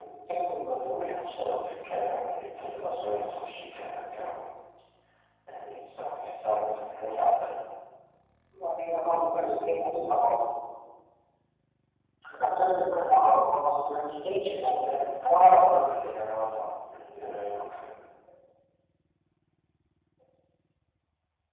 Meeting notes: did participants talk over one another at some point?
Yes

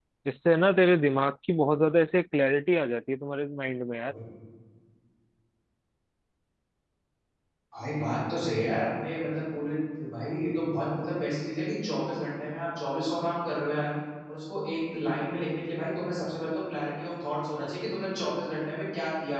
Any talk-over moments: No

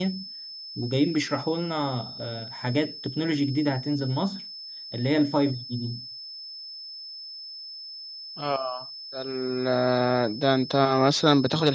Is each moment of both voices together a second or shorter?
Yes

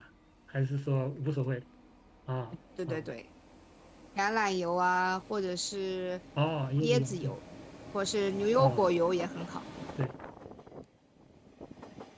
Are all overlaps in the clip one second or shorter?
Yes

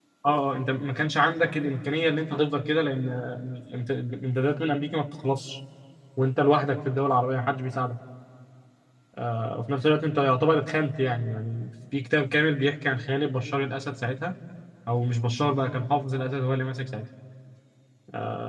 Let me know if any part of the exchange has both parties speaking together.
No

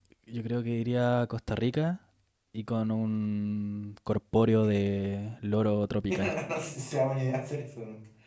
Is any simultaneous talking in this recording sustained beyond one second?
No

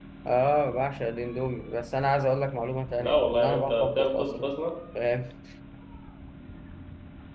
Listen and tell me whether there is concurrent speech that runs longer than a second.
Yes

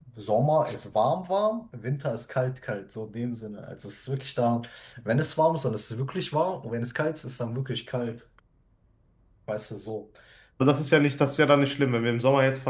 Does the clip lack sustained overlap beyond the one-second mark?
Yes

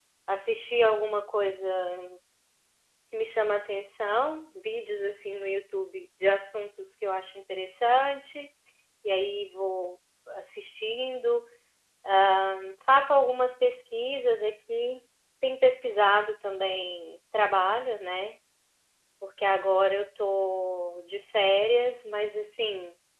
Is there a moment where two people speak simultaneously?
No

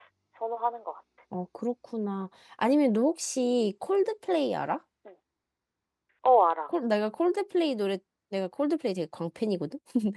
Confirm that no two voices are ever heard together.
Yes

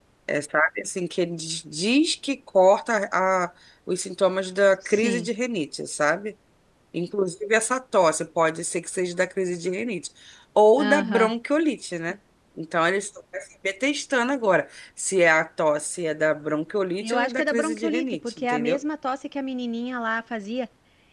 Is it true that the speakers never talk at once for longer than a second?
No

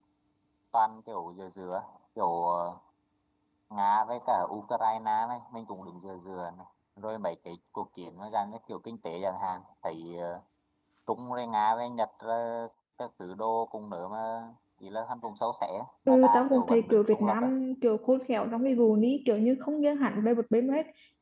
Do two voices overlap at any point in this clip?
Yes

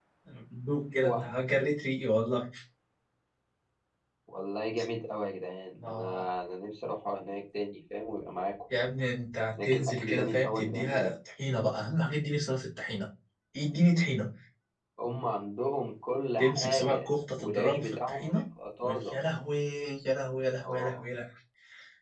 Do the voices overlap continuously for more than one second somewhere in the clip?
Yes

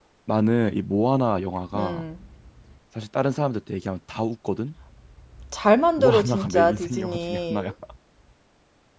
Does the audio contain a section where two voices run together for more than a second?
Yes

